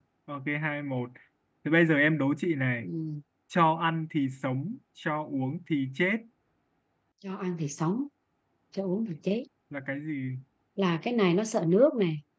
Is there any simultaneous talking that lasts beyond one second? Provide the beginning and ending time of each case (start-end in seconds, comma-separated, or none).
none